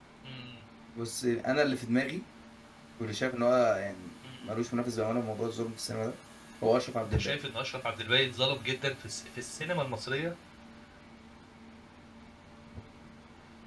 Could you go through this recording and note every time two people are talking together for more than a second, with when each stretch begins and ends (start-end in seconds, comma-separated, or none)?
none